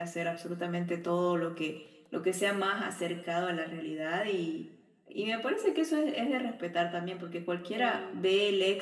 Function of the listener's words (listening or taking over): listening